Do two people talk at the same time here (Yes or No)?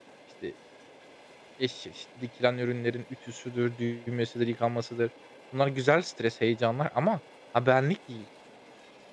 No